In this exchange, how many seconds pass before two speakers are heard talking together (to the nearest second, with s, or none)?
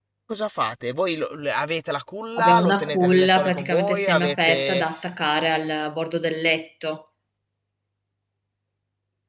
2 s